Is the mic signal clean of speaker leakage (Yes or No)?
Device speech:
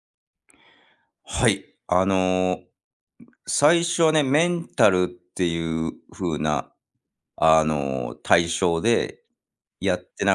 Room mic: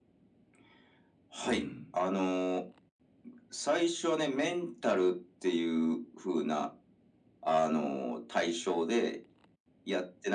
No